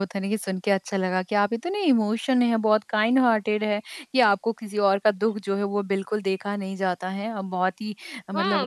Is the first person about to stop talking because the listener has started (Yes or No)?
Yes